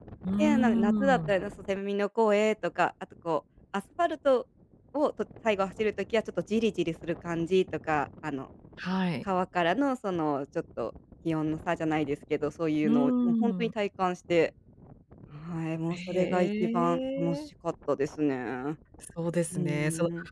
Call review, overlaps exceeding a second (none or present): present